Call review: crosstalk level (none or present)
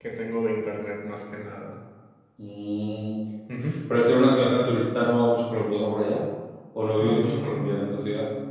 present